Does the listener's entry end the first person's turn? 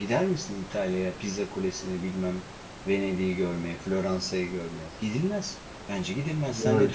Yes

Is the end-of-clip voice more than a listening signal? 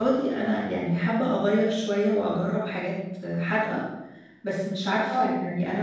No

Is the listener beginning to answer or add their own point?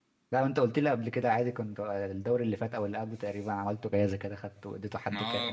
Yes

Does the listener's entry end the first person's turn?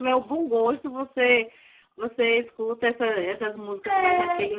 No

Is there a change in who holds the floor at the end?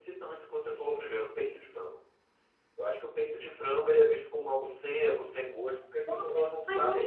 Yes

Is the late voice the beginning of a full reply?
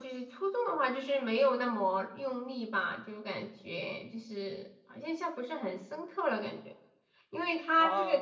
No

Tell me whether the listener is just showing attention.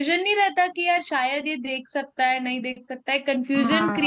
No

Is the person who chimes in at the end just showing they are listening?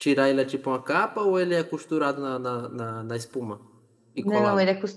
No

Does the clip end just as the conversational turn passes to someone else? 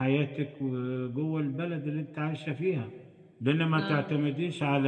No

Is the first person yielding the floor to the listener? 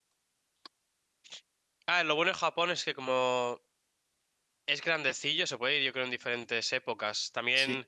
No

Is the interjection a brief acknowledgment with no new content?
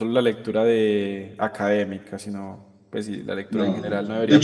No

